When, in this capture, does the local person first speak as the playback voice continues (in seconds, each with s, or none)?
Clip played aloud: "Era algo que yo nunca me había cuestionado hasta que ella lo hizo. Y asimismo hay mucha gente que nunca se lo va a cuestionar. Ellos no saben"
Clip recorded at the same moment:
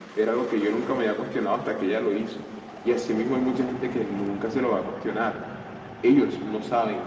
none